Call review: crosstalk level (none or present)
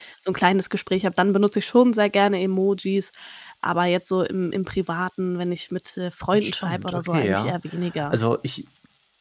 present